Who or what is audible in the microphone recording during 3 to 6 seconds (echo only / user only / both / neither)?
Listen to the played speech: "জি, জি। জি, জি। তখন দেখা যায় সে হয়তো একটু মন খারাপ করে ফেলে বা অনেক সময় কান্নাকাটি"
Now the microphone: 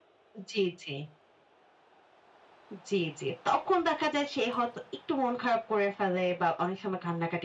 echo only